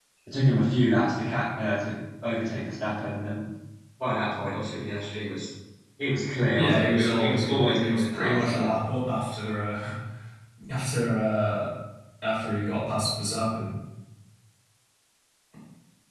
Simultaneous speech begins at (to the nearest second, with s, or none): 7 s